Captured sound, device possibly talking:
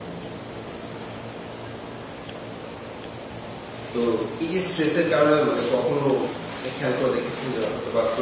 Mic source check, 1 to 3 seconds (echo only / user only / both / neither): neither